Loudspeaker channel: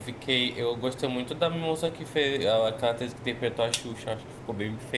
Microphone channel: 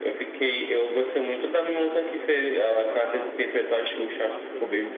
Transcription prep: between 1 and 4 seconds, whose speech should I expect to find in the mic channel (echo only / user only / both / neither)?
both